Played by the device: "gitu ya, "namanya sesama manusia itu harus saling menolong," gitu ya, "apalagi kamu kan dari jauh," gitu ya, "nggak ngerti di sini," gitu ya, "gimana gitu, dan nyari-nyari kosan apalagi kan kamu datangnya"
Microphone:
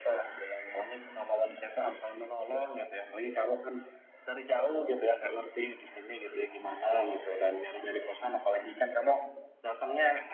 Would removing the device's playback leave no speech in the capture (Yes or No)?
Yes